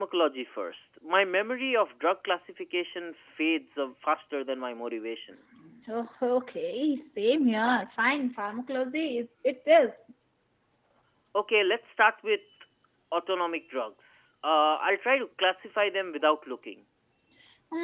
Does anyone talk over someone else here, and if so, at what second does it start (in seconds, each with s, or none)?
none